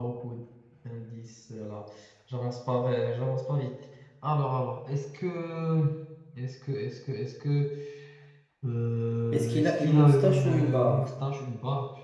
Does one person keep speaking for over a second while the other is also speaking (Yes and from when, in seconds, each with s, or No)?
Yes, from 9.3 s